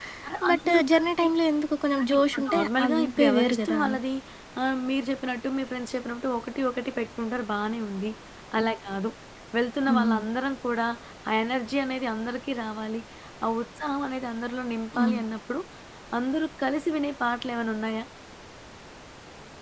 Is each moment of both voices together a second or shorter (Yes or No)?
No